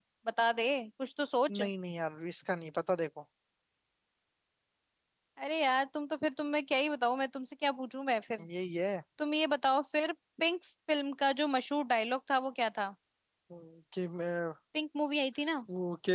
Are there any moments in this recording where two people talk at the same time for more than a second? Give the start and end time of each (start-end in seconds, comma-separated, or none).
none